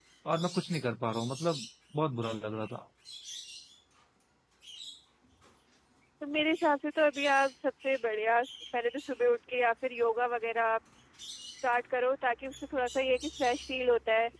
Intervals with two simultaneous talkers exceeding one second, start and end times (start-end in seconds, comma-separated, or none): none